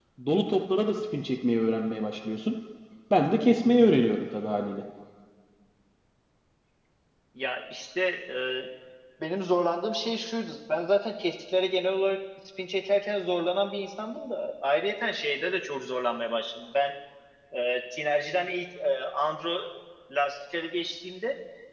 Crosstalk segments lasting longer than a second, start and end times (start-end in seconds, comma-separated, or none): none